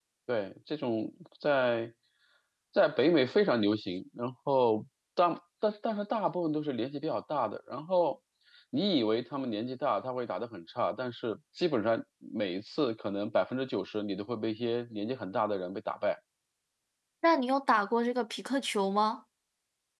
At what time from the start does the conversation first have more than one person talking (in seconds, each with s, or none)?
none